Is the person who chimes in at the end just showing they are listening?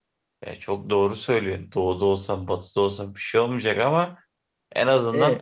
Yes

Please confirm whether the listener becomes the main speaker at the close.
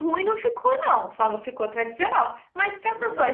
No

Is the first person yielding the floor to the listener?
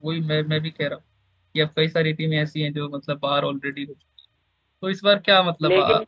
No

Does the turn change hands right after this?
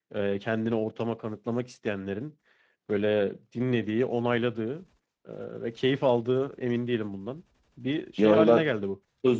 Yes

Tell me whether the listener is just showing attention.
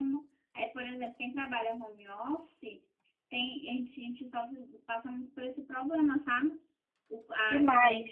Yes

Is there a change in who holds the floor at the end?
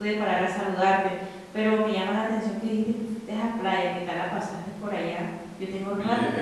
Yes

